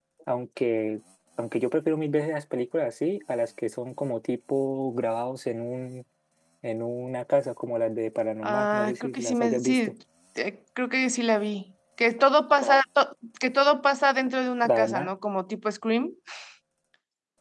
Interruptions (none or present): present